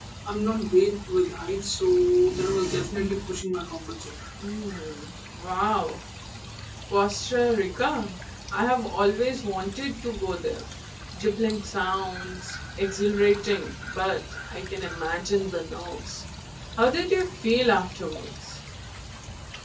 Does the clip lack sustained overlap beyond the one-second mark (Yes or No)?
Yes